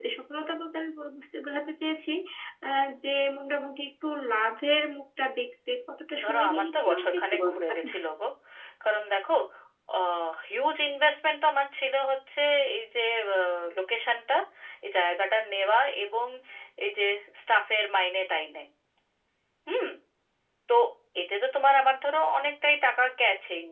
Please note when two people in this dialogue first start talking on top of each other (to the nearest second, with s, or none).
6 s